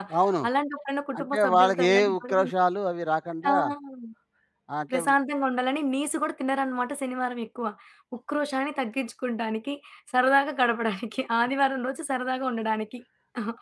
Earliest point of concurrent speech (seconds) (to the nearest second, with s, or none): 1 s